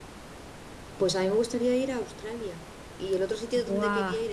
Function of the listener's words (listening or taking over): listening